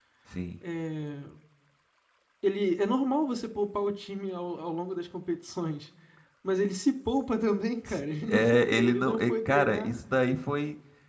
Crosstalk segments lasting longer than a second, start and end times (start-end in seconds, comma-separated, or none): 7.8-10.0